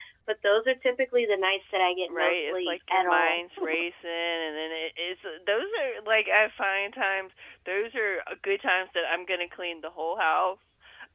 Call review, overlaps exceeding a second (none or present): present